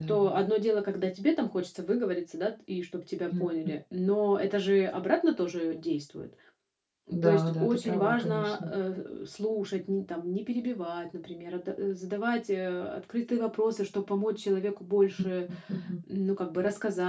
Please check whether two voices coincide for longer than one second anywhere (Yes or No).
Yes